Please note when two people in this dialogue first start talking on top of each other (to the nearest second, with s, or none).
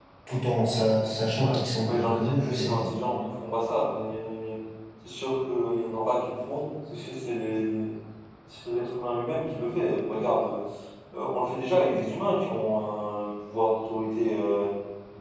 1 s